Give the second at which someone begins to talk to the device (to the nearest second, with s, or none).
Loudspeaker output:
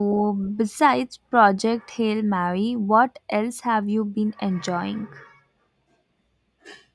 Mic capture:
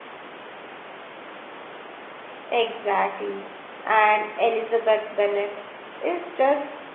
3 s